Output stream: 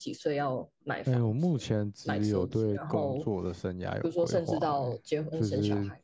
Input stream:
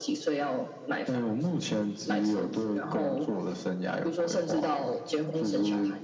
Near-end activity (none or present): none